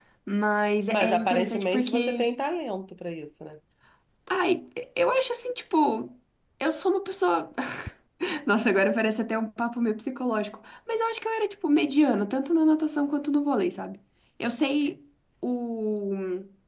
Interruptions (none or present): present